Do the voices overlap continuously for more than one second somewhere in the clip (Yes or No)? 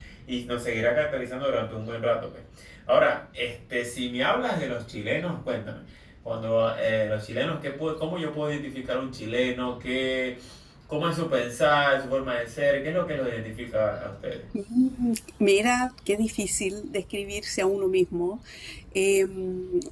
No